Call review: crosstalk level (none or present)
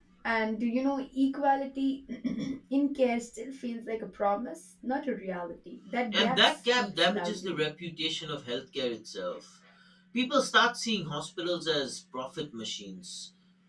present